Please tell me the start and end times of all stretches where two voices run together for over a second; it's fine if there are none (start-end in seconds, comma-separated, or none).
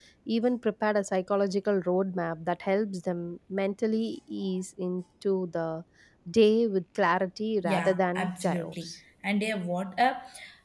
7.6-8.9